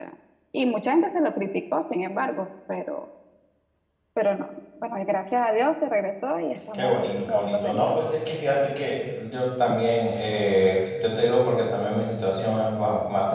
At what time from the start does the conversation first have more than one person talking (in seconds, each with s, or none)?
6.7 s